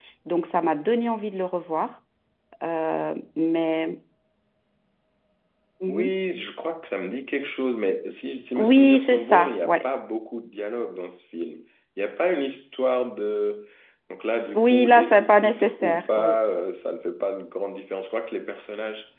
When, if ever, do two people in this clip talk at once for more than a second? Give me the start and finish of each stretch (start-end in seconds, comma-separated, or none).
8.6-9.8, 14.5-16.4